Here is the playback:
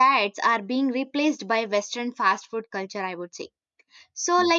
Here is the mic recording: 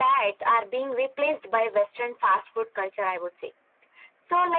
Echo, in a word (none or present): present